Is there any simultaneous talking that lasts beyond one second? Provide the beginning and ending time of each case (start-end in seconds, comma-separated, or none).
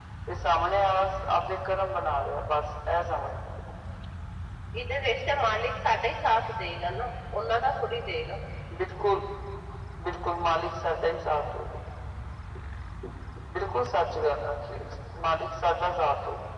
none